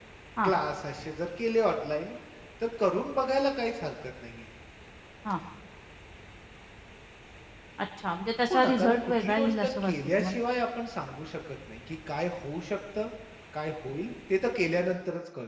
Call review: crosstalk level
present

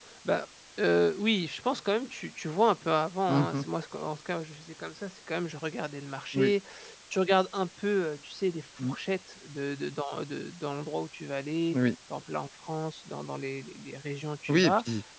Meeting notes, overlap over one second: none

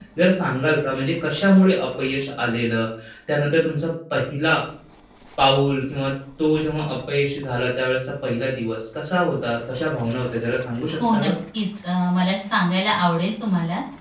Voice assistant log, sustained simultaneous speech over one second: none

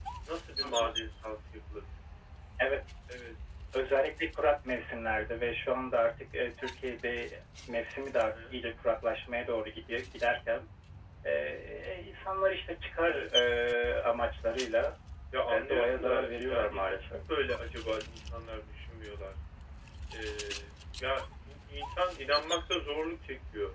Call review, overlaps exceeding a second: present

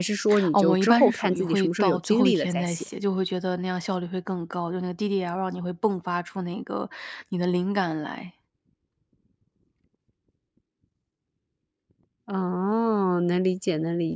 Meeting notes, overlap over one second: present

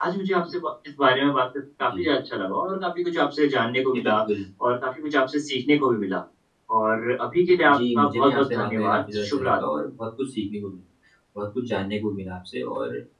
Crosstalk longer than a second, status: present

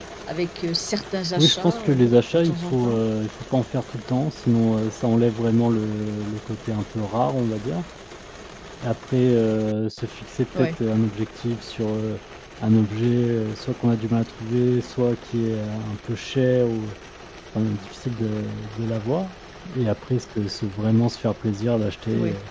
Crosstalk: present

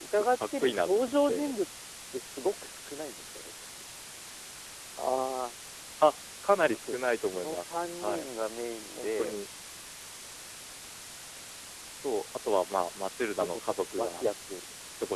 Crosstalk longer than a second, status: present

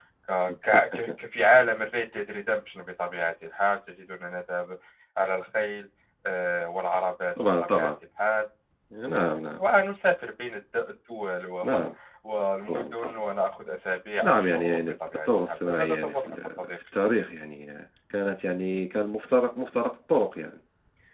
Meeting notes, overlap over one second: present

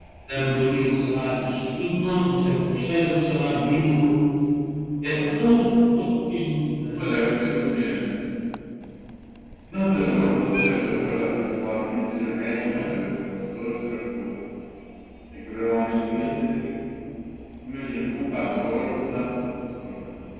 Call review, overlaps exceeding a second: none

